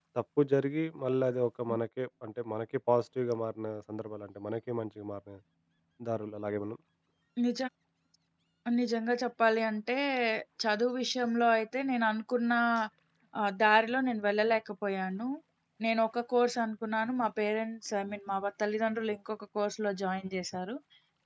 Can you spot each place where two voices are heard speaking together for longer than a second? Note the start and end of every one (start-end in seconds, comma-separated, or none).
none